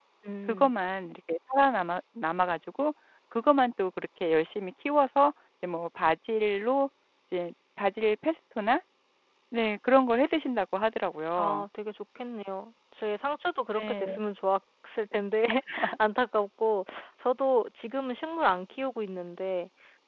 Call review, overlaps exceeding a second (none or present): none